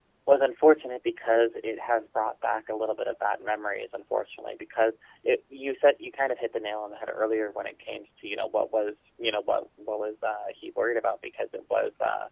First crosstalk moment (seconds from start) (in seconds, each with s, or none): none